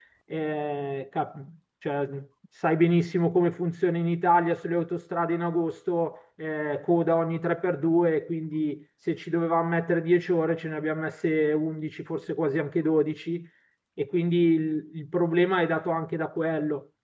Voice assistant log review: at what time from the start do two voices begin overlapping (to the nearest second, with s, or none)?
none